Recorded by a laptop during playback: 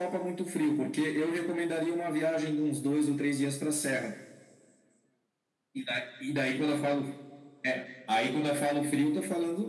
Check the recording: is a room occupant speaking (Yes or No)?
No